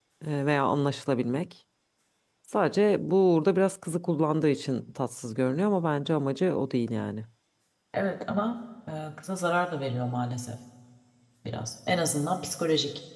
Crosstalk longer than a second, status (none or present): none